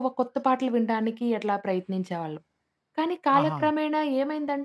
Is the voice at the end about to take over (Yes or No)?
No